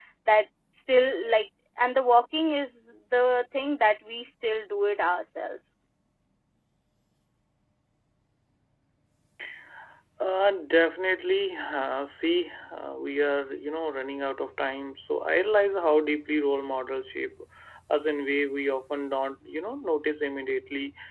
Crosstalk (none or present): none